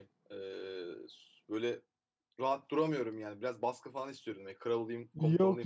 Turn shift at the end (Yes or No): Yes